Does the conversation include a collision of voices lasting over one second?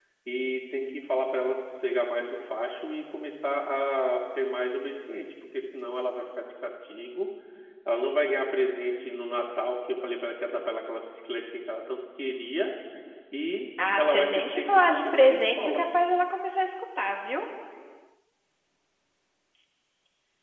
Yes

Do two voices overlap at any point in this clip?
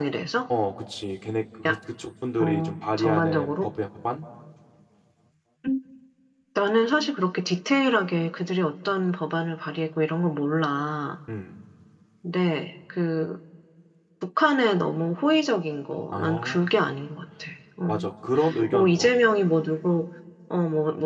Yes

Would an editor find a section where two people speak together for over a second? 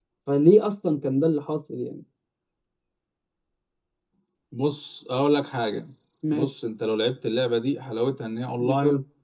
No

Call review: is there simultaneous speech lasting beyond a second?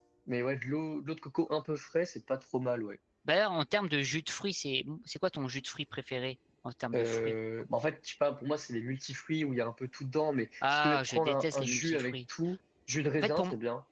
Yes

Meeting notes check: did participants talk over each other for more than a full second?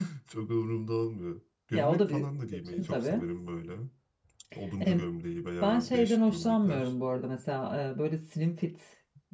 Yes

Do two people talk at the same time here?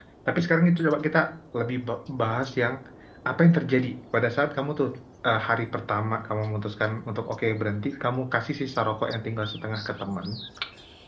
No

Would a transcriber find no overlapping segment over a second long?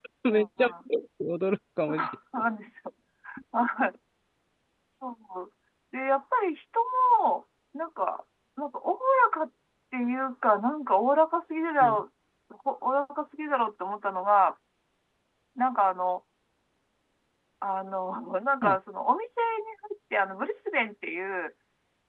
Yes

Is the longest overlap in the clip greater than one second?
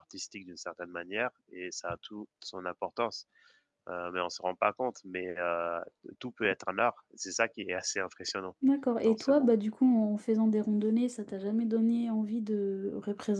No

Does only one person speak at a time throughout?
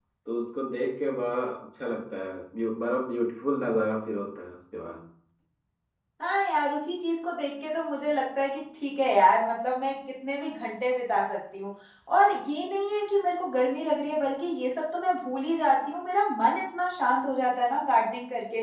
Yes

